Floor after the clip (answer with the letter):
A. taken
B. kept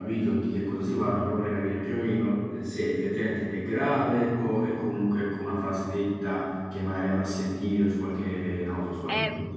A